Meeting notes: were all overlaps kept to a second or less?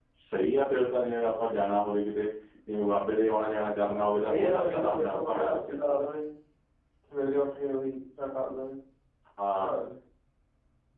No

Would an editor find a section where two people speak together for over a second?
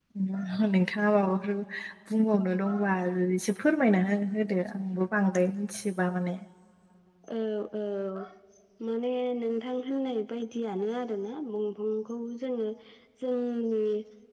No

